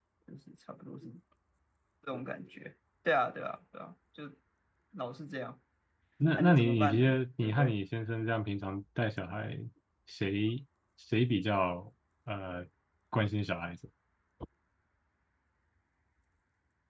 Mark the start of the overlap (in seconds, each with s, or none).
6.4 s